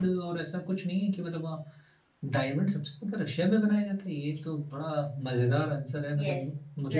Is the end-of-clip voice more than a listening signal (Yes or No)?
Yes